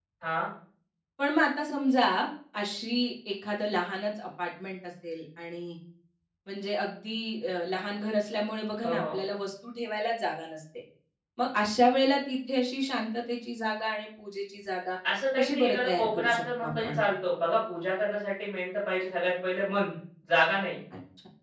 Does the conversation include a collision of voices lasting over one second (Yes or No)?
Yes